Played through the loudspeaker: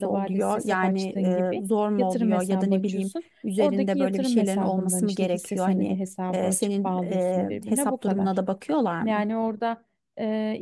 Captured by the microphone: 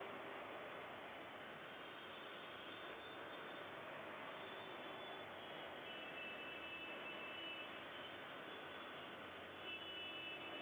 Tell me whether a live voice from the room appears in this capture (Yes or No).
No